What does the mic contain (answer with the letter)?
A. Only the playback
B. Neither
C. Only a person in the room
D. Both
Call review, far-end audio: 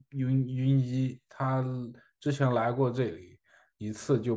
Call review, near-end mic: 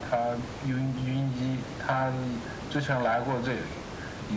A